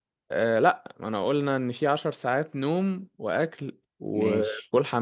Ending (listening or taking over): listening